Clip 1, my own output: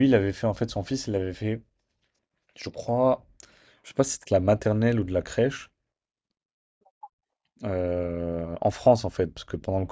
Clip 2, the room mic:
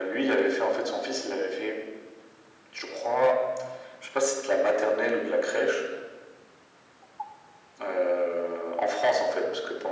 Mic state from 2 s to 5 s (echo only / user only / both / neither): echo only